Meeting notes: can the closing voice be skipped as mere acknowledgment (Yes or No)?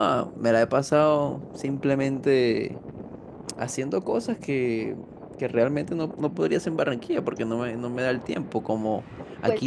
Yes